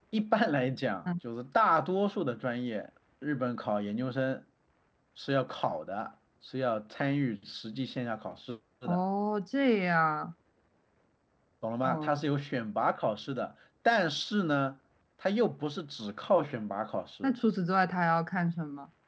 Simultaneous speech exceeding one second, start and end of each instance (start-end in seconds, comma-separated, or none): none